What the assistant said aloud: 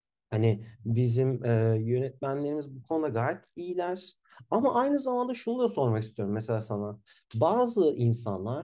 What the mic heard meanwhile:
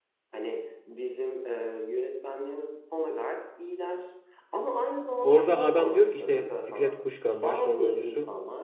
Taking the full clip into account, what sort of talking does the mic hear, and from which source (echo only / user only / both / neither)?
both